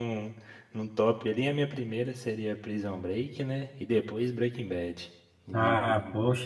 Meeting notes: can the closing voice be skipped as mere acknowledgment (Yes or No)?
No